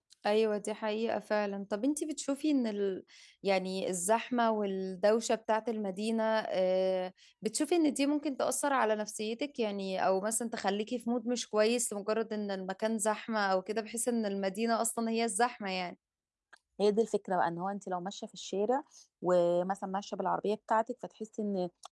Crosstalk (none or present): none